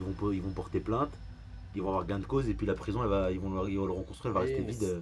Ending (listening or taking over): taking over